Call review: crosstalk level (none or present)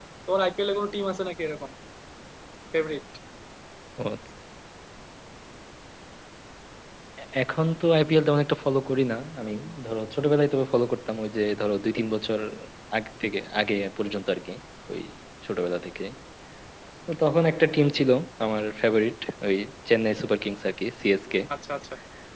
none